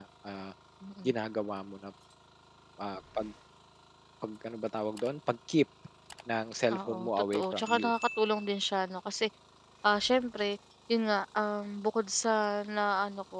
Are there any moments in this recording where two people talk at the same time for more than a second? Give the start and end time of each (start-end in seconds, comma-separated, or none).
6.7-7.9